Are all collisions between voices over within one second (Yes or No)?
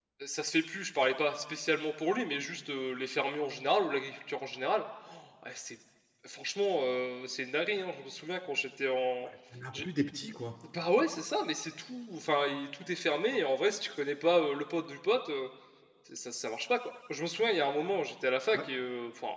Yes